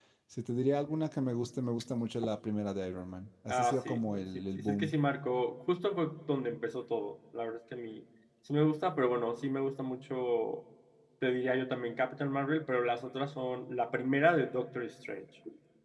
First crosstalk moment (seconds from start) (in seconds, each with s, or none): 3.5 s